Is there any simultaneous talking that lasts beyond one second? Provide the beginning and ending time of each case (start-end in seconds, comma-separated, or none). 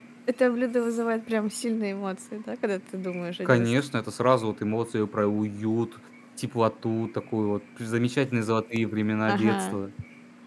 none